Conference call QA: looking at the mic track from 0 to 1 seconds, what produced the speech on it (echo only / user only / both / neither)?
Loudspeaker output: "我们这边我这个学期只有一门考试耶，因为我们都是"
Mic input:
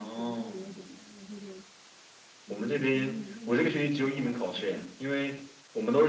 both